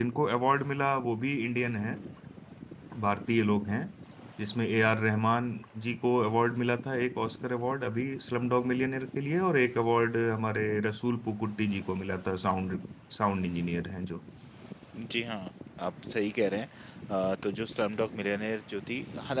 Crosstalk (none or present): none